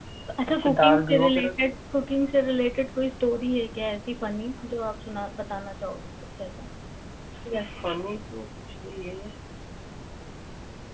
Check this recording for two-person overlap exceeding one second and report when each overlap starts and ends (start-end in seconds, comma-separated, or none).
0.5-1.7